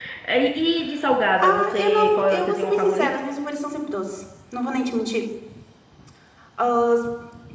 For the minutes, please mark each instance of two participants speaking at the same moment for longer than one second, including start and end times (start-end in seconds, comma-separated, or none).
1.4-3.1